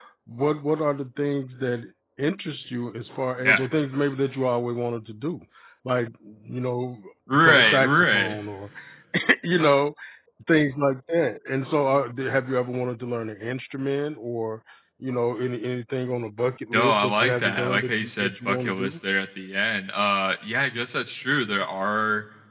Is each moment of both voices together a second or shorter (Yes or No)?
No